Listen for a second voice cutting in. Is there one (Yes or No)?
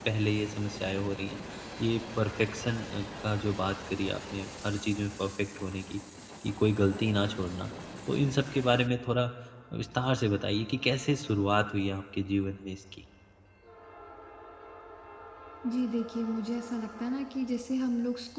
No